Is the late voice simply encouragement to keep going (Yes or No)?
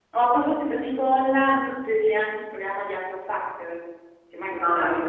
No